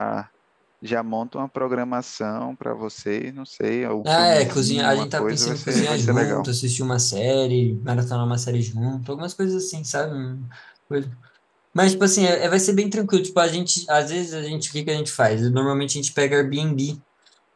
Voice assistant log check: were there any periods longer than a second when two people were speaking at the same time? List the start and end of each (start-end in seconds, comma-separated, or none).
4.2-6.5